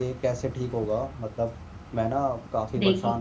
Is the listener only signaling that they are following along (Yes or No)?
Yes